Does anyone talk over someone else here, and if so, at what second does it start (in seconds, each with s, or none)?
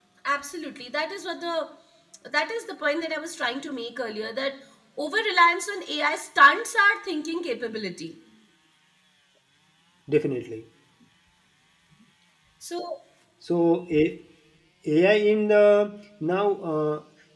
none